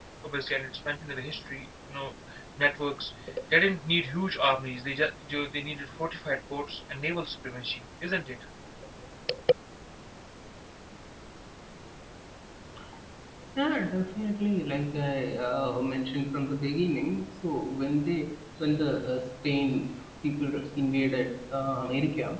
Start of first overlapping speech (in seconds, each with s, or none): none